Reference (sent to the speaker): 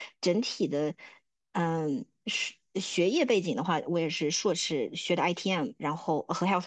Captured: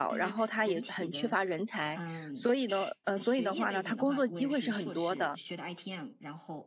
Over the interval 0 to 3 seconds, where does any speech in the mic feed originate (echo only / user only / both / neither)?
both